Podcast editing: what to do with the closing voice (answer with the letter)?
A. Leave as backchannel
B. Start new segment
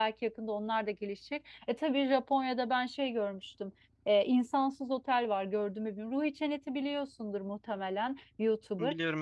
A